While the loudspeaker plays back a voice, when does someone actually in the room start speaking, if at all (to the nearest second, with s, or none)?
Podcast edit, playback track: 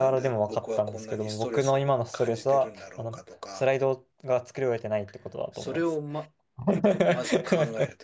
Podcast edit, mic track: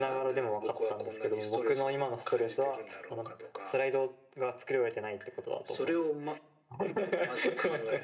none